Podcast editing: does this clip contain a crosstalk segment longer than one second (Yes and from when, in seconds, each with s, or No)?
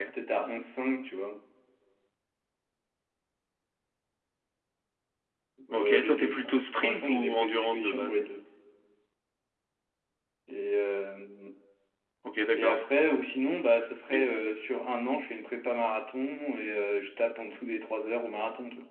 Yes, from 5.7 s